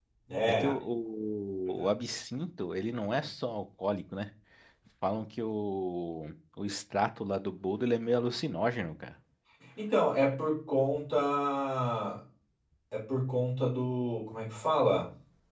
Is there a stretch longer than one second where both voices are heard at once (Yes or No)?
No